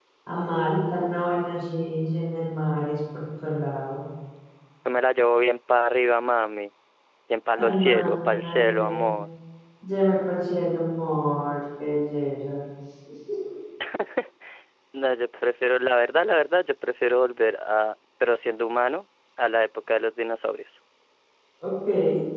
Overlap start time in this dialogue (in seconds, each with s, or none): 7.6 s